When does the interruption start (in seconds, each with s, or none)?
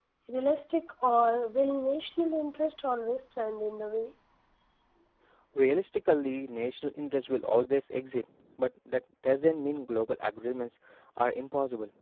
none